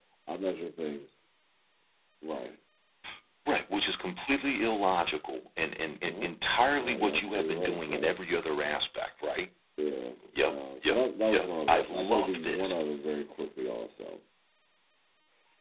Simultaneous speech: Yes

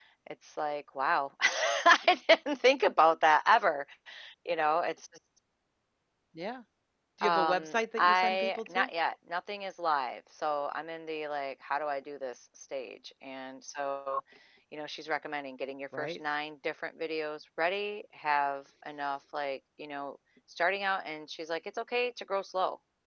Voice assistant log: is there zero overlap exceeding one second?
No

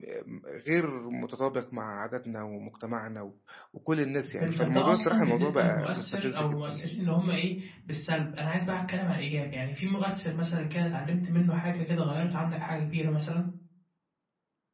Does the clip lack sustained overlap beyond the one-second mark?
No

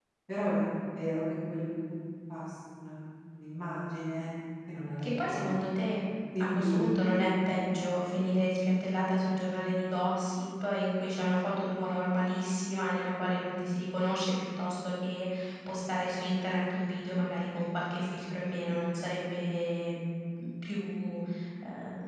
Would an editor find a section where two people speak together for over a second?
No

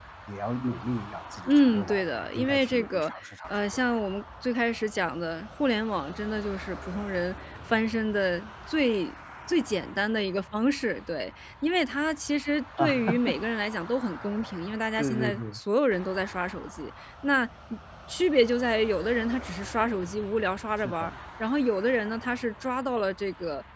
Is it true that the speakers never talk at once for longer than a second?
No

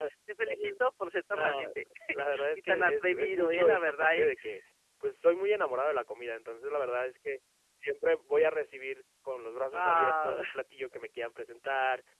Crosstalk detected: Yes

